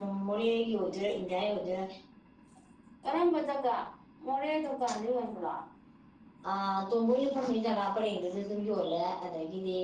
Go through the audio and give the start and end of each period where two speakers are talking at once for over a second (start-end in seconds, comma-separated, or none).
none